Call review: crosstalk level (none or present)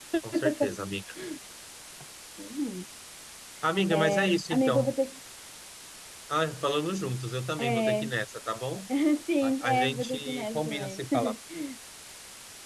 present